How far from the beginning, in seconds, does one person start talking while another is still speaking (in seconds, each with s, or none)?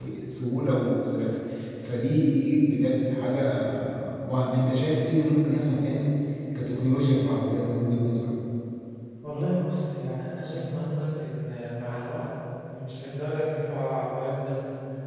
none